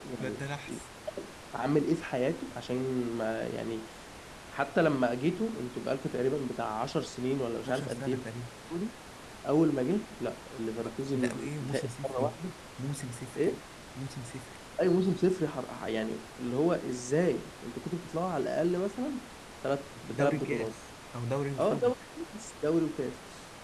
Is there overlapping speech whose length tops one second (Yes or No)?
Yes